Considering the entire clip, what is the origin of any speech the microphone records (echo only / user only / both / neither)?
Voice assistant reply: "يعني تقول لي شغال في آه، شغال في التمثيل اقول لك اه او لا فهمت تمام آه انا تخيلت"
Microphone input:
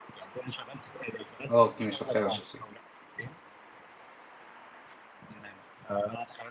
both